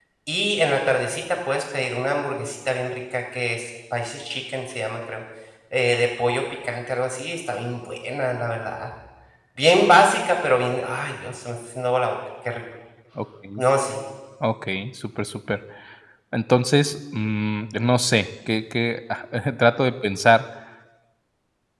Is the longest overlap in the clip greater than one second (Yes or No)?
No